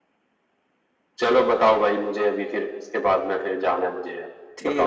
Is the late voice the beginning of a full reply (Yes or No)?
Yes